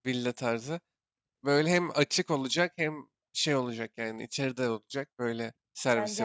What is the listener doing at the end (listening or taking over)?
taking over